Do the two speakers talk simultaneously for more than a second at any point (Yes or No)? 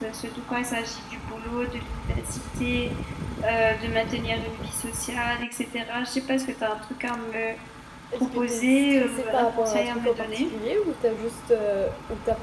Yes